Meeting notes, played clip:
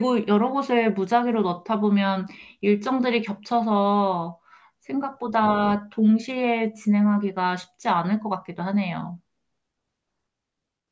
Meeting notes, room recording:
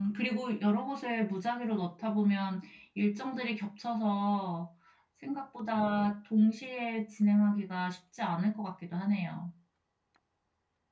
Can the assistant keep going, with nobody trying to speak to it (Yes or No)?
Yes